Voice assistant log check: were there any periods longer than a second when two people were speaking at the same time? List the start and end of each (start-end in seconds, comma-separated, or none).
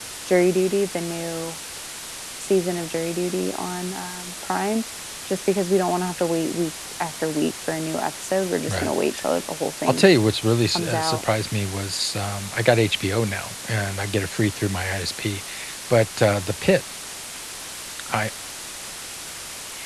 none